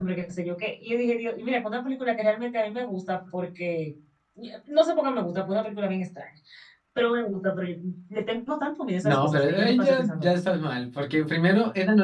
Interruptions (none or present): present